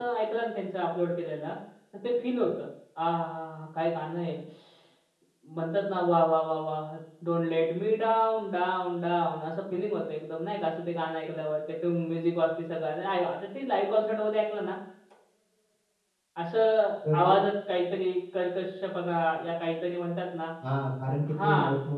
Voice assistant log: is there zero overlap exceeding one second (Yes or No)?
Yes